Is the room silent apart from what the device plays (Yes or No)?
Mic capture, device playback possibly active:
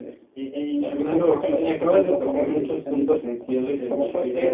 No